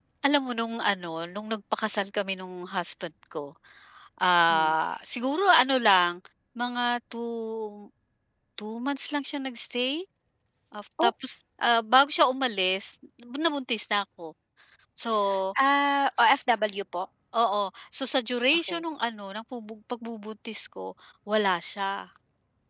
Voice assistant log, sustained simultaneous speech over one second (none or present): none